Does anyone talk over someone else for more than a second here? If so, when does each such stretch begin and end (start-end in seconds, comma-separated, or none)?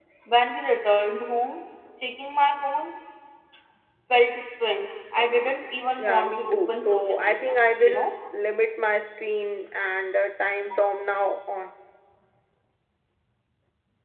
6.0-8.1